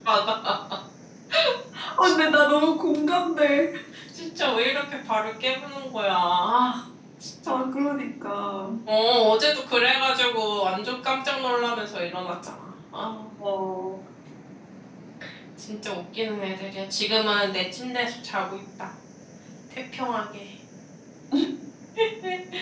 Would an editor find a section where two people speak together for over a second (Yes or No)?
No